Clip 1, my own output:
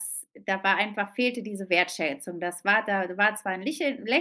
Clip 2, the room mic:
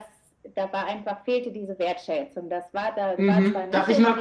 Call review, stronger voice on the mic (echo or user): user